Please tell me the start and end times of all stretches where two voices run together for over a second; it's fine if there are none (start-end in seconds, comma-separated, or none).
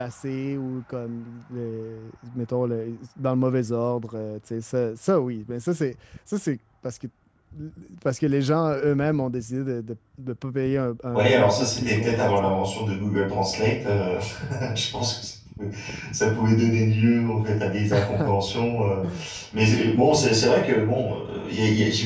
11.1-12.5